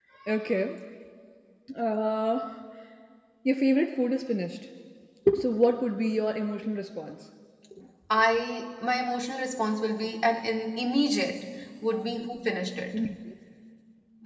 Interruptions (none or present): none